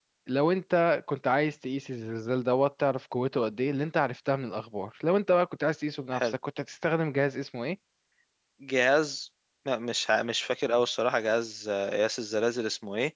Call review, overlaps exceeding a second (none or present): none